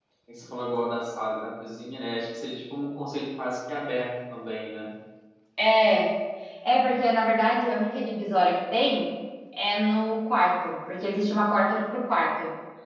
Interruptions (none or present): none